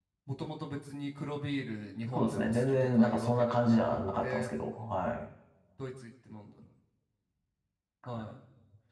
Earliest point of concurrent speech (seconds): 2.1 s

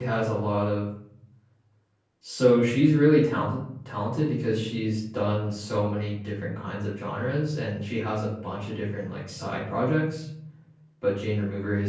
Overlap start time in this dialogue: none

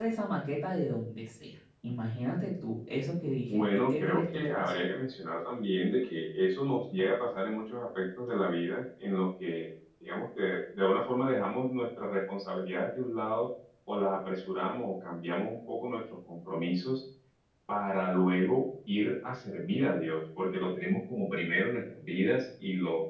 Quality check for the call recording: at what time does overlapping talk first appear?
3.5 s

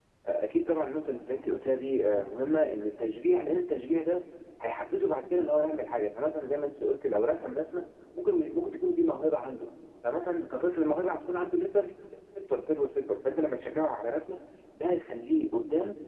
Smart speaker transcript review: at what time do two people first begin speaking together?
none

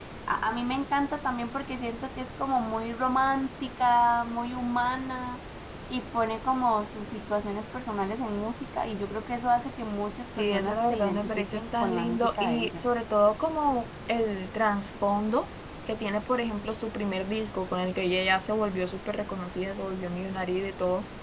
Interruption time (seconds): 10.4 s

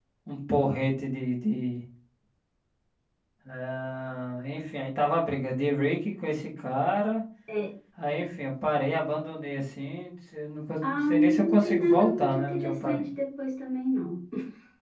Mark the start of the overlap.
10.8 s

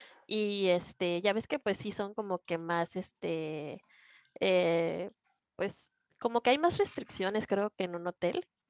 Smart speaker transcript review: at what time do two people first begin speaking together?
none

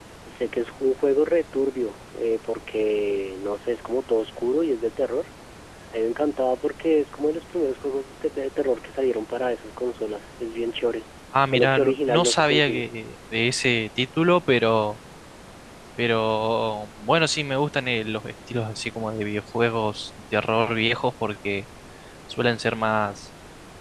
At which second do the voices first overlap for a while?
11.3 s

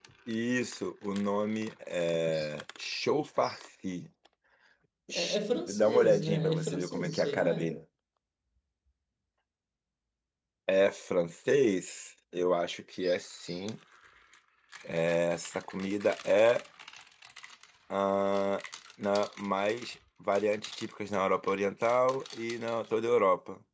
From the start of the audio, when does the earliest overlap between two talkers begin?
5.1 s

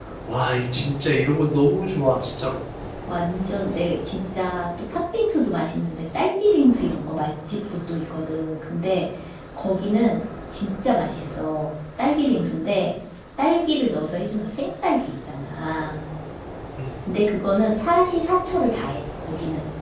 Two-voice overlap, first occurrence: none

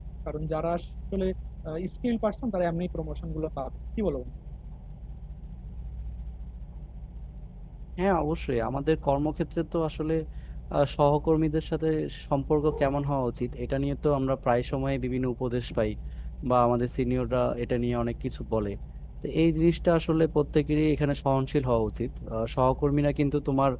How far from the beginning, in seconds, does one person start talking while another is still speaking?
none

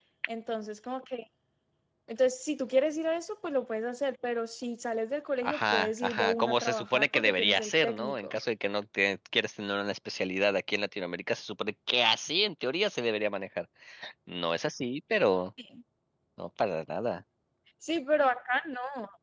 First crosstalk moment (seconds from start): 5.4 s

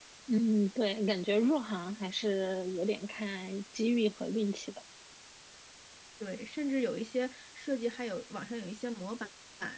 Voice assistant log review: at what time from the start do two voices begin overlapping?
none

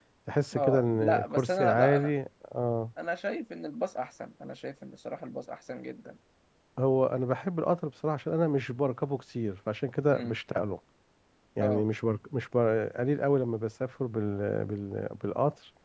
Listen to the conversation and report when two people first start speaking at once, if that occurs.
0.5 s

